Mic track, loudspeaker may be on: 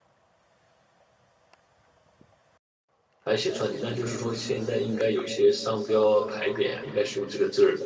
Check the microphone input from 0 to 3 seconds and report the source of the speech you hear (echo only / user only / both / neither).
neither